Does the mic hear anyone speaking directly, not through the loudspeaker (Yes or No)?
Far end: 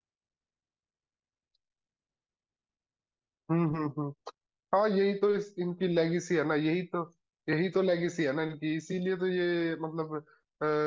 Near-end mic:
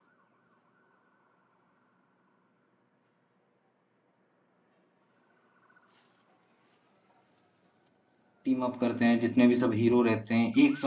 Yes